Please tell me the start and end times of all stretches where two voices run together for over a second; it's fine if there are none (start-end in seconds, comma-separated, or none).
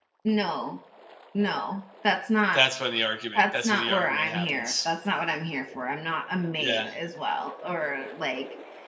3.4-4.9